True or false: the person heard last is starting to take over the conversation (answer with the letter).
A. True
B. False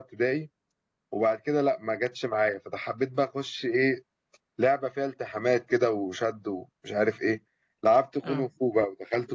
B